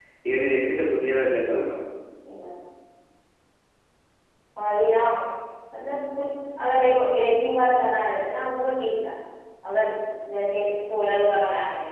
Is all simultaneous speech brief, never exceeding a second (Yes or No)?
Yes